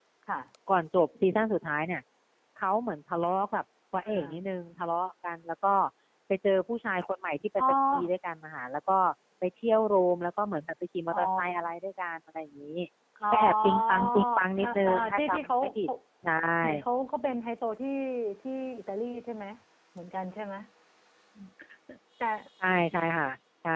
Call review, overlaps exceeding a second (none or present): present